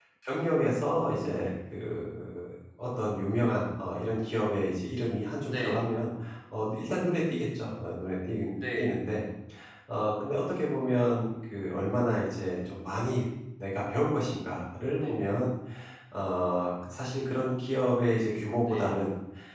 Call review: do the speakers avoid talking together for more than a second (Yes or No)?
Yes